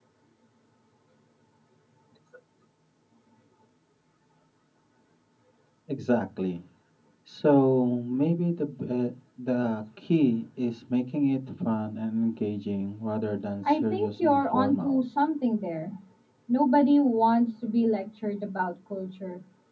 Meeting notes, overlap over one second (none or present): present